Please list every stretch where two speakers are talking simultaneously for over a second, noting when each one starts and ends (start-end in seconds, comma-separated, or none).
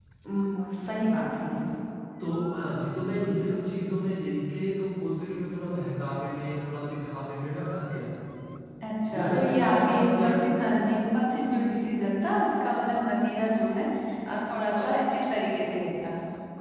9.1-10.4